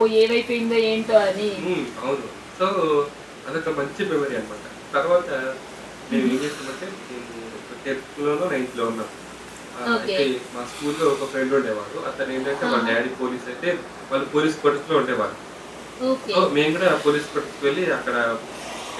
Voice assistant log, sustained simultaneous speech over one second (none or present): none